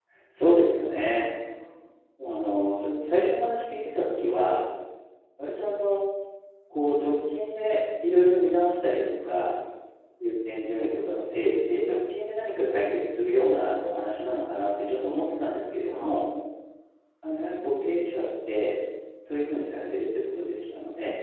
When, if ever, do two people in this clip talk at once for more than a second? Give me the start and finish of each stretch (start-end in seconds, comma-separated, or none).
none